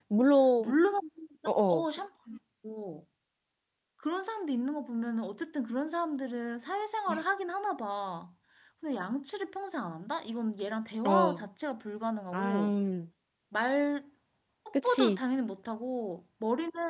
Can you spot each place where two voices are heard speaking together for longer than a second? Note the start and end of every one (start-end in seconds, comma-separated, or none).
none